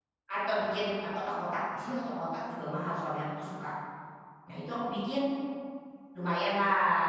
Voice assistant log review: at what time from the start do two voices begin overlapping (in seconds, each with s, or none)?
none